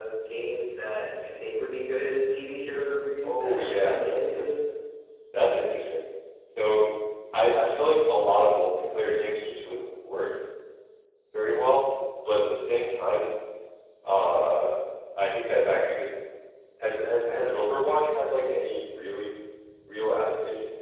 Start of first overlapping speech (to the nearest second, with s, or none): 3 s